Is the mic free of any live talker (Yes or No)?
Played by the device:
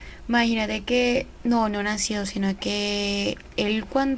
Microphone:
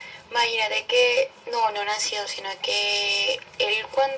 Yes